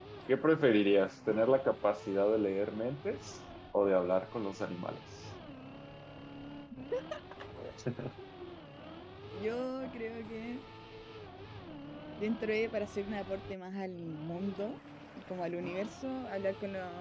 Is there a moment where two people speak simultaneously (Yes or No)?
No